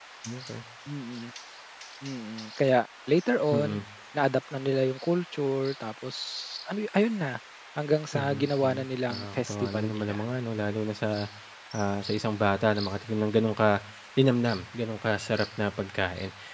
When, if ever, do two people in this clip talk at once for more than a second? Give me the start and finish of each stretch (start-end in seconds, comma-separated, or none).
8.1-10.2